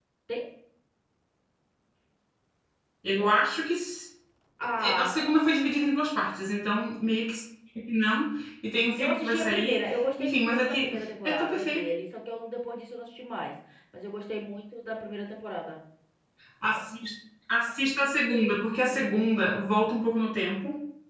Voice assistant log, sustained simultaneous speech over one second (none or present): present